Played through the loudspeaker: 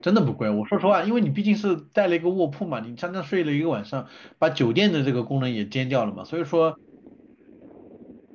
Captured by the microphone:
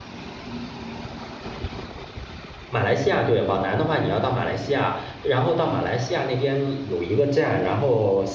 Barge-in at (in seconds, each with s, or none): 2.7 s